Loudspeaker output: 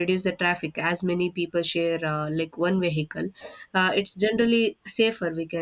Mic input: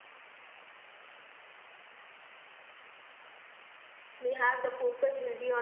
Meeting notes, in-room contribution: present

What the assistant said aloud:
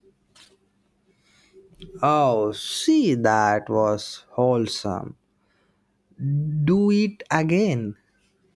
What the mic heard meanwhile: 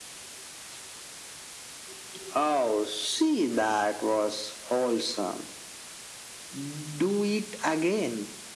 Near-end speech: none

